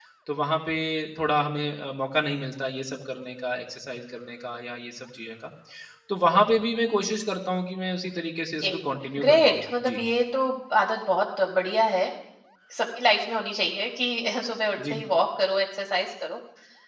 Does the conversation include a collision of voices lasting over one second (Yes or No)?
Yes